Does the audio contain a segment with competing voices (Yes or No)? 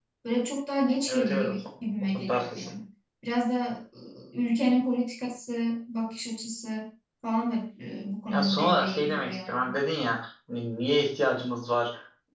Yes